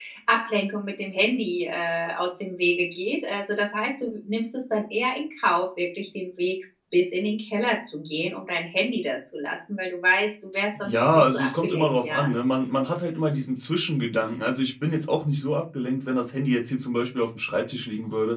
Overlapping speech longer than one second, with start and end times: 10.8-12.3

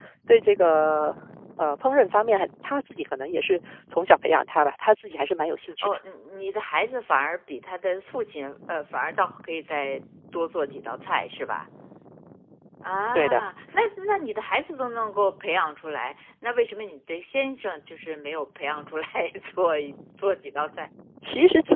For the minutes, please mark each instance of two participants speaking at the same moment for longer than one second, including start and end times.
none

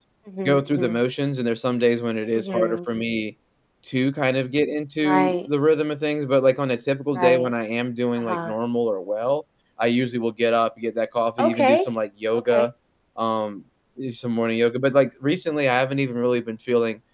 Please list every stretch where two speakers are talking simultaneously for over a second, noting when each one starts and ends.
none

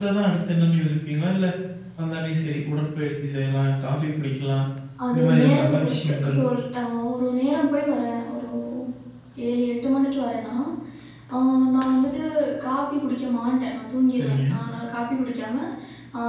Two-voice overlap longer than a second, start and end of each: 5.1-6.4

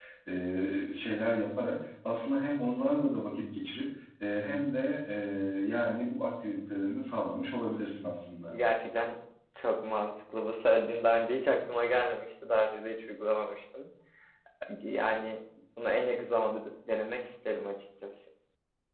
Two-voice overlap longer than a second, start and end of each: none

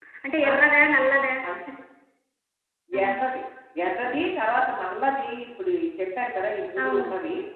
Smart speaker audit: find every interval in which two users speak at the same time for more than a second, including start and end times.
none

